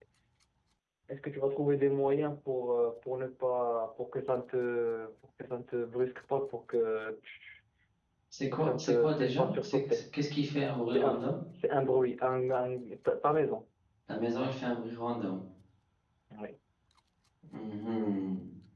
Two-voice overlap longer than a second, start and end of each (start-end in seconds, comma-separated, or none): 8.5-10.0